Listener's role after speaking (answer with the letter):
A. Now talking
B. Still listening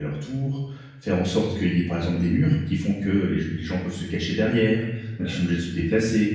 B